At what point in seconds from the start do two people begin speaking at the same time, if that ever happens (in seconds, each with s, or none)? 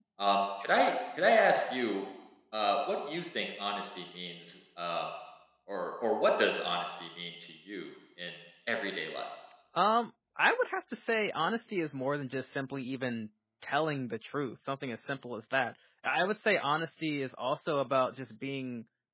none